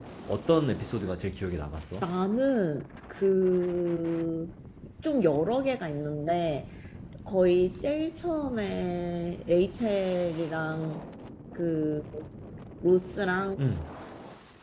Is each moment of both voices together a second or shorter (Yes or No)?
Yes